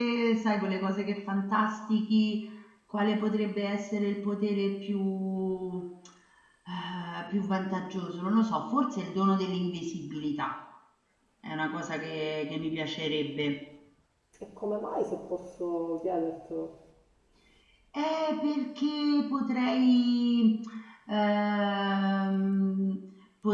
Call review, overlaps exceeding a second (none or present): none